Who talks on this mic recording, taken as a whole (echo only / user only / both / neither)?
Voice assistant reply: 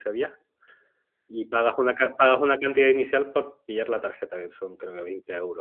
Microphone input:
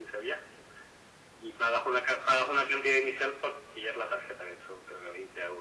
echo only